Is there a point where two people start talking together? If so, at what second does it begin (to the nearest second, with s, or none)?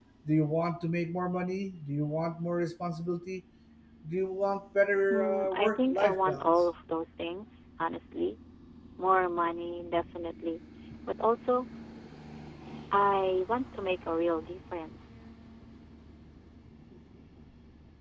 5 s